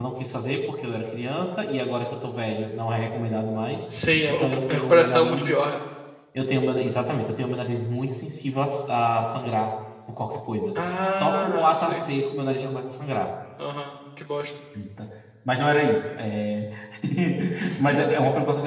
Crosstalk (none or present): present